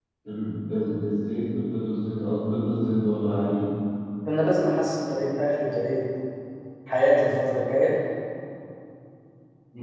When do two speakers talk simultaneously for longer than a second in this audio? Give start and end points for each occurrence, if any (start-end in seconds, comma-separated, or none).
none